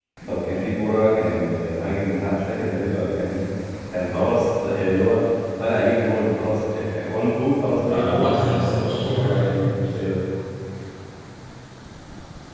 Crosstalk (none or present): present